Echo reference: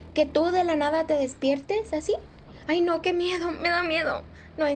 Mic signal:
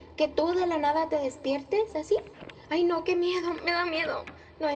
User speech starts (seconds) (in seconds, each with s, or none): none